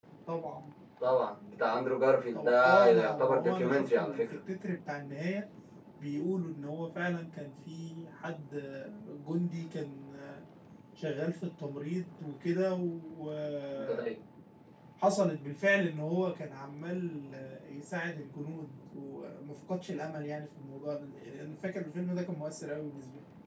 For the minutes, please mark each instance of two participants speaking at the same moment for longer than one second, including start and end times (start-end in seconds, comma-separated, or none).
2.3-4.2